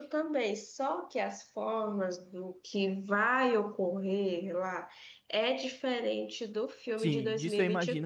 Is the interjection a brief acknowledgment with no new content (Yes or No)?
No